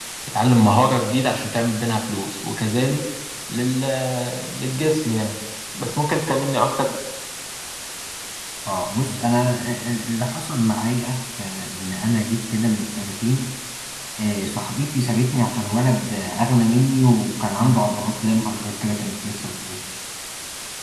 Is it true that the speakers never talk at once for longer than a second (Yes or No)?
Yes